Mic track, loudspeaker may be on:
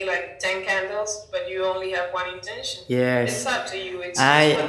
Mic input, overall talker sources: both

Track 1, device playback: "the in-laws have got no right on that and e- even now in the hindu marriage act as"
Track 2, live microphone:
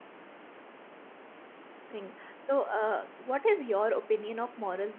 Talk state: user only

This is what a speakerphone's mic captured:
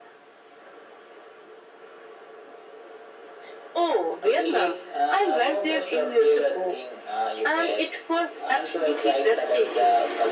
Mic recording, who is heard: echo only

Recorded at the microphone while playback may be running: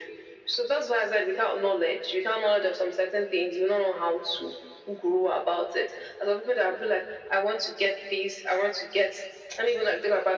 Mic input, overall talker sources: echo only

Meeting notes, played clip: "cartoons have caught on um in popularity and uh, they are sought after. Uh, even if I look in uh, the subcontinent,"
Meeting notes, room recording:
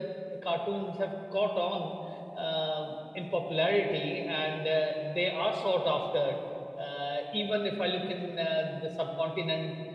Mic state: echo only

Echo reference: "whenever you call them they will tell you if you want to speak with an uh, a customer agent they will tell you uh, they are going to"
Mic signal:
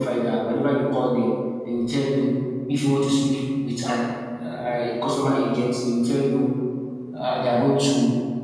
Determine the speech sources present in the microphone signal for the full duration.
echo only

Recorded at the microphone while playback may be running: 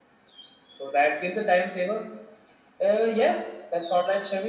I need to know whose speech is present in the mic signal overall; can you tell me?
echo only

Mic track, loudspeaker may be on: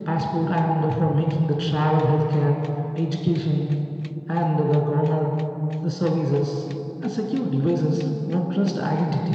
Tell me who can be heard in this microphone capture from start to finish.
echo only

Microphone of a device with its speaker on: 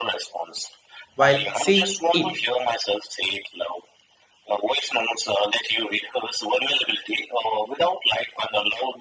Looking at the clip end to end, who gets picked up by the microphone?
both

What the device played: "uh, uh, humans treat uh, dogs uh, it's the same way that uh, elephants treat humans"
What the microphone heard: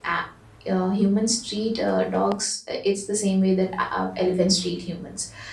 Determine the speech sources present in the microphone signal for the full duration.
echo only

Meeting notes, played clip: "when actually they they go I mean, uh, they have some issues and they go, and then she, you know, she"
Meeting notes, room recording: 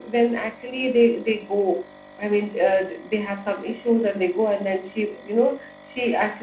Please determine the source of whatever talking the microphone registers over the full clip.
echo only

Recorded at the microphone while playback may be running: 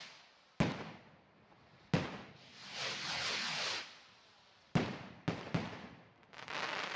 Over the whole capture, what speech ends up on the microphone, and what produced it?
neither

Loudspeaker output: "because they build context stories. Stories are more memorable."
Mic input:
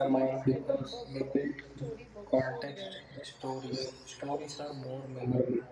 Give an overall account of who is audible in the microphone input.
both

